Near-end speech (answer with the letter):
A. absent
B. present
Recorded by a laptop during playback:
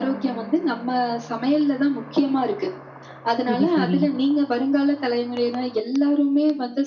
B